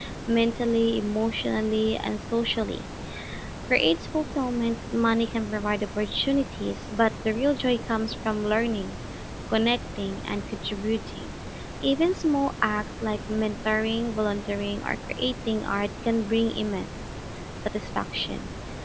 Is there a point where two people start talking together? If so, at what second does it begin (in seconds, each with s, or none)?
none